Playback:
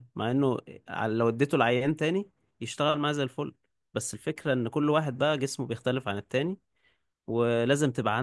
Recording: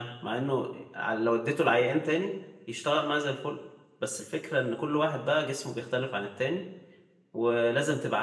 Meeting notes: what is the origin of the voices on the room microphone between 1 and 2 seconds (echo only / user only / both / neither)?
echo only